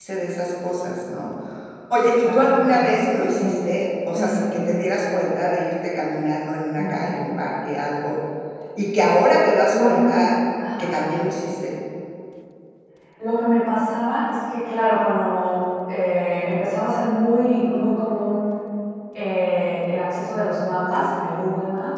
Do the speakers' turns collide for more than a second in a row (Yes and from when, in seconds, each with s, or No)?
Yes, from 2.2 s